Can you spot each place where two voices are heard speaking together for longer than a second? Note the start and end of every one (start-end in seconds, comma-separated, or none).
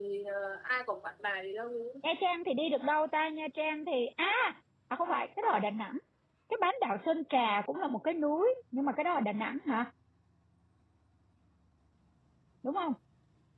none